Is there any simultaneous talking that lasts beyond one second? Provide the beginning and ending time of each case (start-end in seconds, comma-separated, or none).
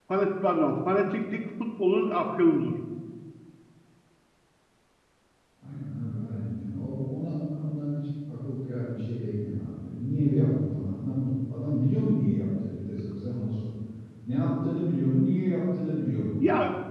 none